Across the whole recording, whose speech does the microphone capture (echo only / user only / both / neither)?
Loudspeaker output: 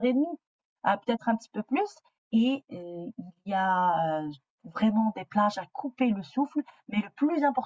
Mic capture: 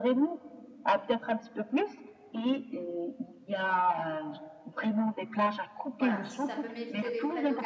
both